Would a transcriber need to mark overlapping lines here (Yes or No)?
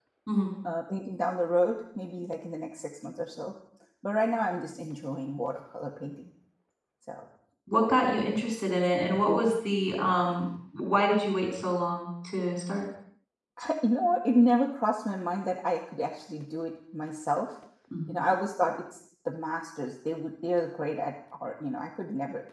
No